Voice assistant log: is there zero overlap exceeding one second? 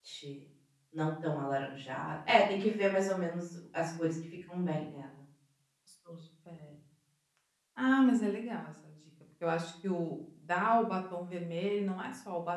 Yes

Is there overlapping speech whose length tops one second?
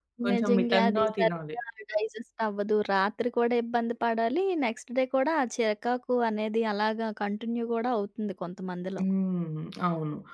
Yes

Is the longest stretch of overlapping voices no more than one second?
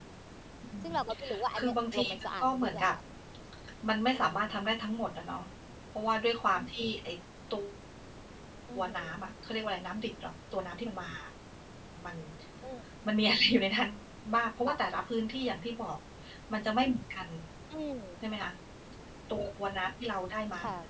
No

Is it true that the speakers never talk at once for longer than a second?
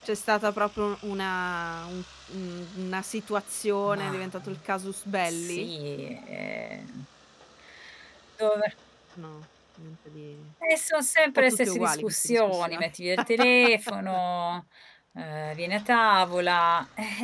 No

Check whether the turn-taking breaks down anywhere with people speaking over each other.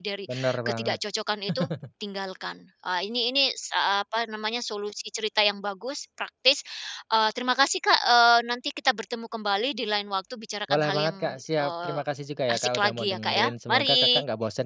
Yes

